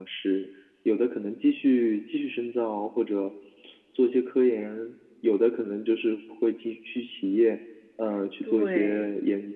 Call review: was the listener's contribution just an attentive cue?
Yes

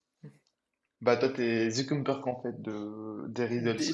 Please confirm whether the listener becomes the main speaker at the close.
Yes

